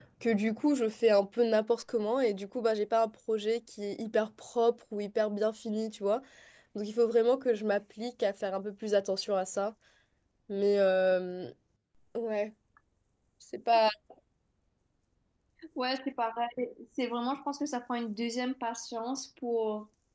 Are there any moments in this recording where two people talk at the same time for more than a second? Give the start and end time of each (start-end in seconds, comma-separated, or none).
none